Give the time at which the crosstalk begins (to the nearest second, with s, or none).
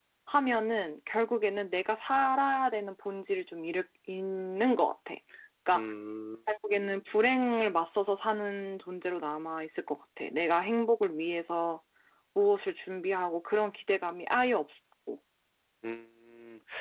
none